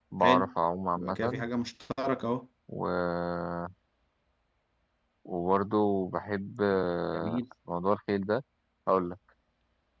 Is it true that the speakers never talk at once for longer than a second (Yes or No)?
Yes